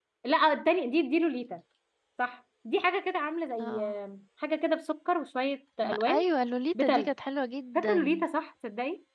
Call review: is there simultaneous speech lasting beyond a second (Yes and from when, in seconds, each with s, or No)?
No